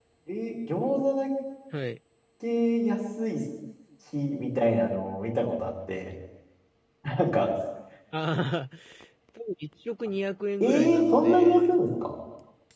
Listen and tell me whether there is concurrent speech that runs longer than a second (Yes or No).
Yes